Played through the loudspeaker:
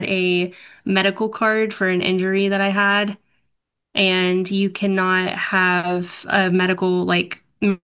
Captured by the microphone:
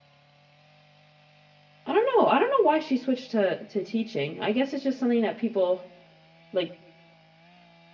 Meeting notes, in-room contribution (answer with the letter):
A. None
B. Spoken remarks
B